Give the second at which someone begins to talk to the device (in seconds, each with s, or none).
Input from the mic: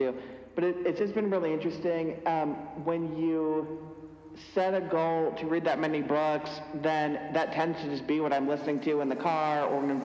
none